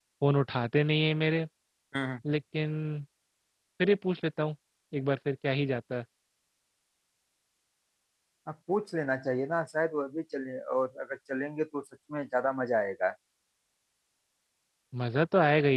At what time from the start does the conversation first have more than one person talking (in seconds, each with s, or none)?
none